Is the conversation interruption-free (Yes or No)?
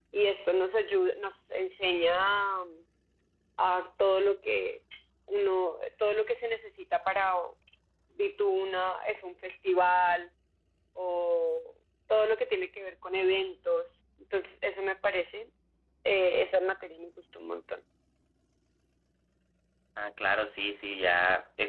Yes